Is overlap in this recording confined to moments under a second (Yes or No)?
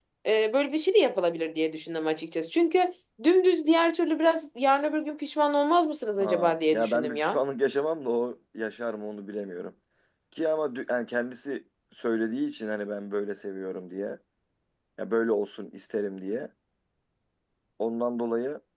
No